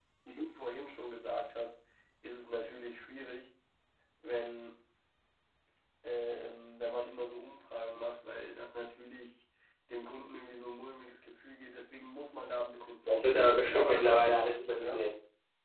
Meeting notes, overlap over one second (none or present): present